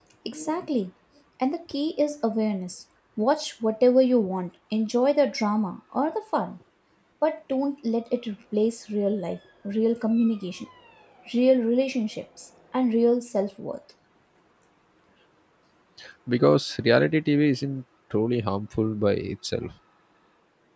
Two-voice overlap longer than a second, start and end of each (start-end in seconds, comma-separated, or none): none